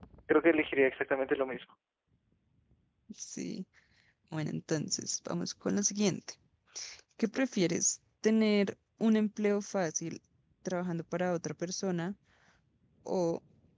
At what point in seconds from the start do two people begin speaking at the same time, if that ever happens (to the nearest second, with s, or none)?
none